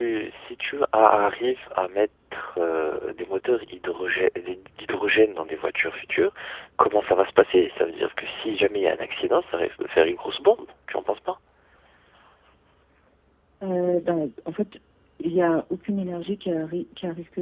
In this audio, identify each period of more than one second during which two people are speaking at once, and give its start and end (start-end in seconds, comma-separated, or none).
none